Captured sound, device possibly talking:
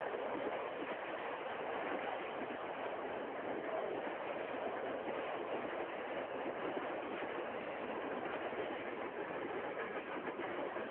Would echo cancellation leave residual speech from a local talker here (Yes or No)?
No